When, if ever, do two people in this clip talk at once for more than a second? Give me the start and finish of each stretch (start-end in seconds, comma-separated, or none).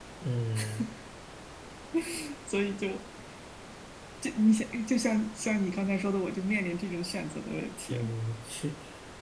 none